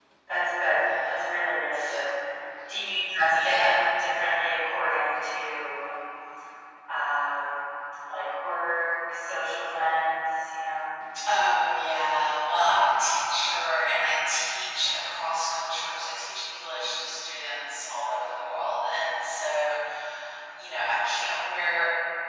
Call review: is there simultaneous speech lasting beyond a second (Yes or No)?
No